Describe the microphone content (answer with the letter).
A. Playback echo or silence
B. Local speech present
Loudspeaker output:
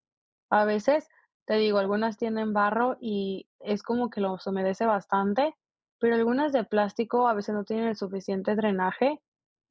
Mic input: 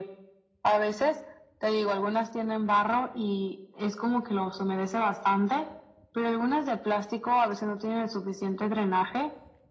A